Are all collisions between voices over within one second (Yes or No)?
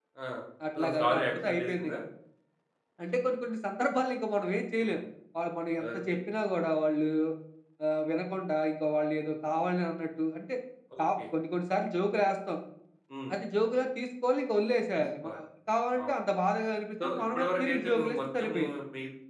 No